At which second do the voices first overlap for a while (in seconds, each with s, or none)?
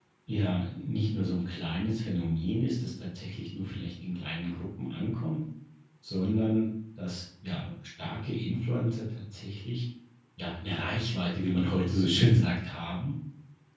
none